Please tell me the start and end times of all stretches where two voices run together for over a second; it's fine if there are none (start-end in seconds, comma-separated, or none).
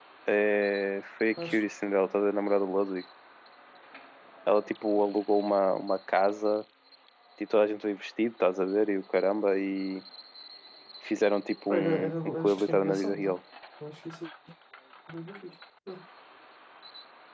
11.7-13.4